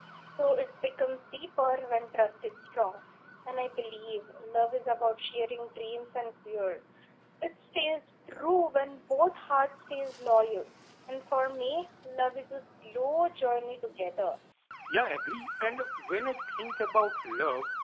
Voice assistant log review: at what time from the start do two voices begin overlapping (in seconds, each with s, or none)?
none